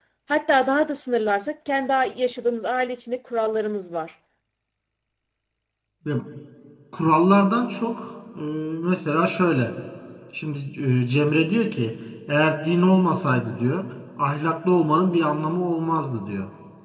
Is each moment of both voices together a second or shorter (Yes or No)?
Yes